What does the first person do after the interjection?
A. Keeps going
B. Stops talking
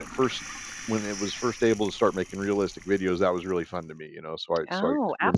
B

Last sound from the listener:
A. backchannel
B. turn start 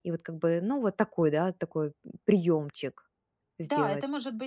B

